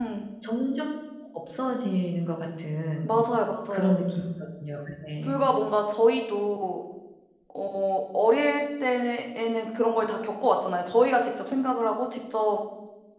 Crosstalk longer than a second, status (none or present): none